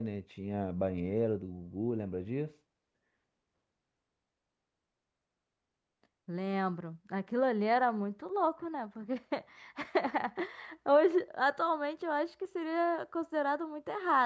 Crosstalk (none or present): none